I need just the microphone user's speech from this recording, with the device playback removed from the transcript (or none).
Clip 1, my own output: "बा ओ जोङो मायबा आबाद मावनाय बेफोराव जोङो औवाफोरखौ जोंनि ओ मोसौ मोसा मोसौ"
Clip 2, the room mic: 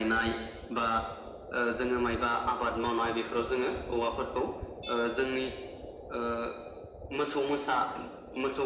none